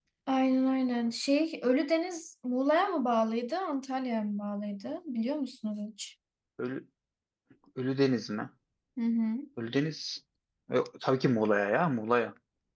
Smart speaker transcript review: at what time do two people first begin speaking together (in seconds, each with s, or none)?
none